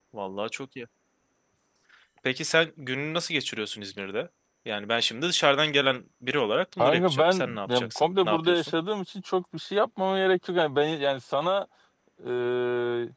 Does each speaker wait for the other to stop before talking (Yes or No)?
No